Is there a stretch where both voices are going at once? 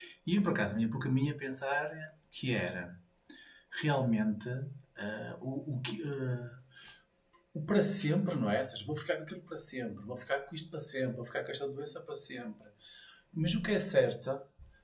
No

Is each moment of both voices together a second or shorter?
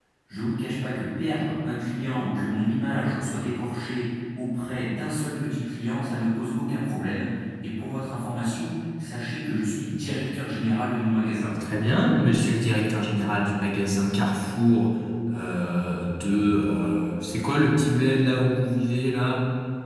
Yes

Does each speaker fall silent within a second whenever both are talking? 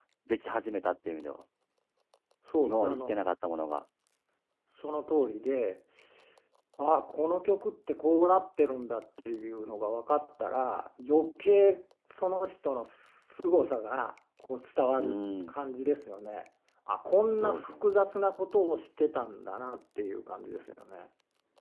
Yes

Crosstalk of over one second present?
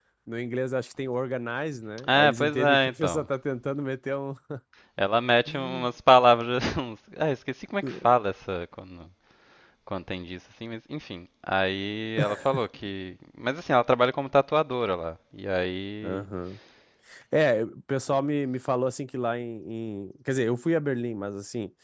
Yes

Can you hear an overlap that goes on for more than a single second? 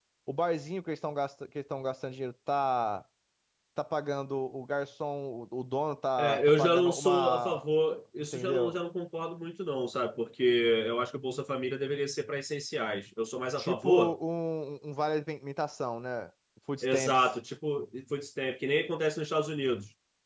Yes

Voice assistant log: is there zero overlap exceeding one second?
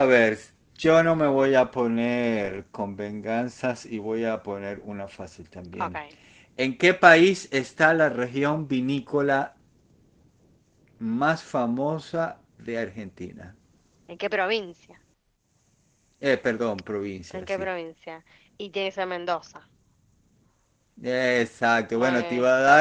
Yes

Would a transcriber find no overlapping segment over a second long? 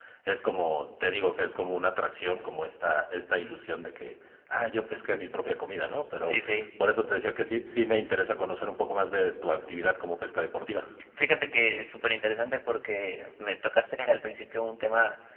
Yes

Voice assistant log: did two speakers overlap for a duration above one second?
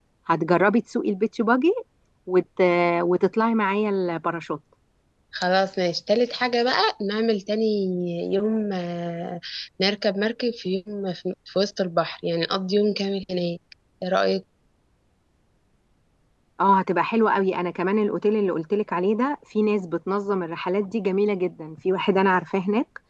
No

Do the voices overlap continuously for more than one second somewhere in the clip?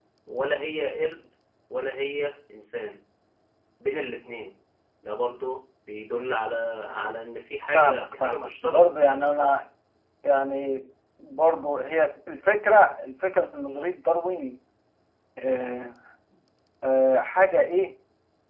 Yes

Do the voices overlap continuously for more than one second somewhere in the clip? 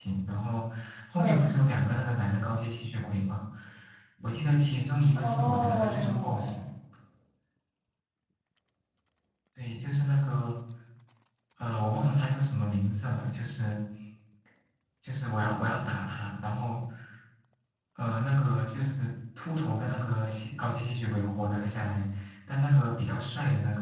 Yes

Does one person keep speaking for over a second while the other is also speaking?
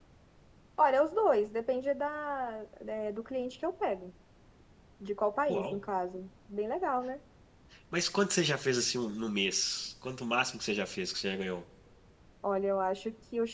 No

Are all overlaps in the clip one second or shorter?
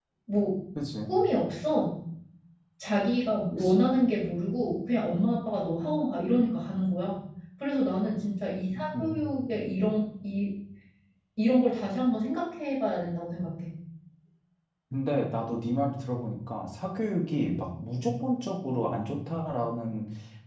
Yes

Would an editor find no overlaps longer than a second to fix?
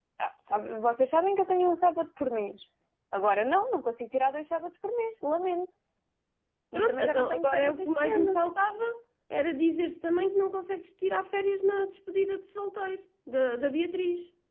No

